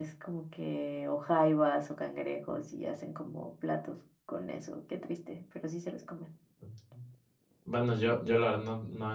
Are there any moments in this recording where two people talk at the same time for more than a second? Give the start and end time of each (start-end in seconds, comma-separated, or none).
none